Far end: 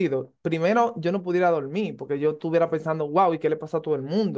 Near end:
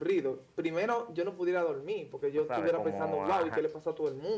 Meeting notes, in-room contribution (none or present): present